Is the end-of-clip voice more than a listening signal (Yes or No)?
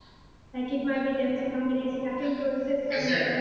Yes